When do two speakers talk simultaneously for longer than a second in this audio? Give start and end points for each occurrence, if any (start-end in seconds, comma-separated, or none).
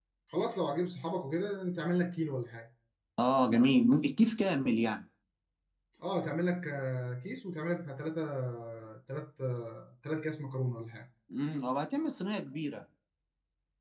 none